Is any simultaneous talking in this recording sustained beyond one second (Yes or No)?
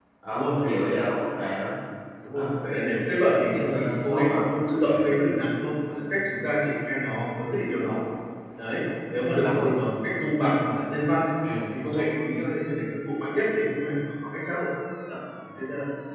Yes